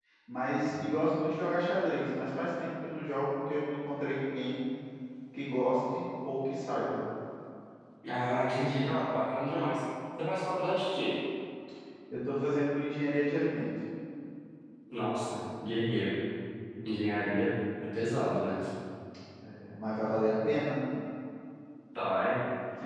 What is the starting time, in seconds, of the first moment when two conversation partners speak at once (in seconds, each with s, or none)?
none